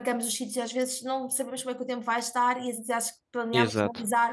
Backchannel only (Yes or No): Yes